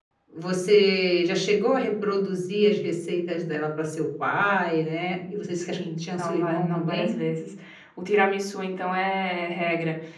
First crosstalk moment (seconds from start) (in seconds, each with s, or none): 5.6 s